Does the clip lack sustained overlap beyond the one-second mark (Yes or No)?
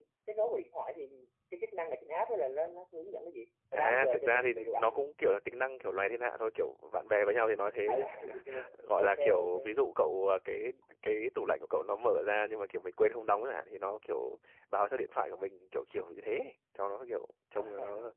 No